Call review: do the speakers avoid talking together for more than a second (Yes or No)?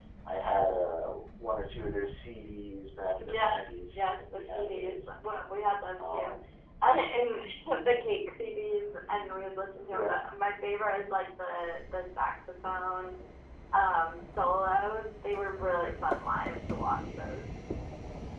No